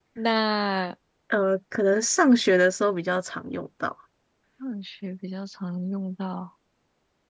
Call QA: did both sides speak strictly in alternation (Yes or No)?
Yes